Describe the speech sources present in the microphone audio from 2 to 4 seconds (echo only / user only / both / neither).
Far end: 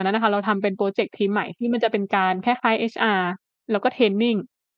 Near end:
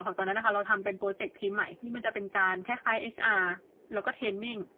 echo only